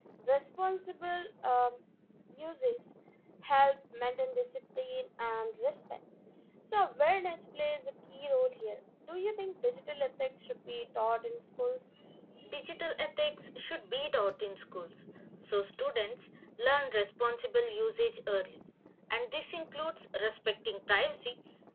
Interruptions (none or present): none